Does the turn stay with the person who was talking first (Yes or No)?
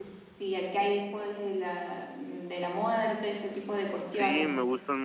No